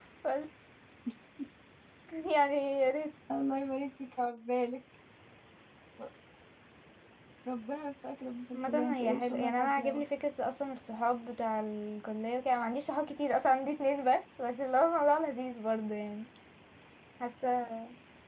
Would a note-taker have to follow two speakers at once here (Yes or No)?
Yes